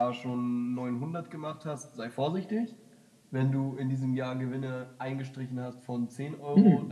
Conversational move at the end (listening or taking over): taking over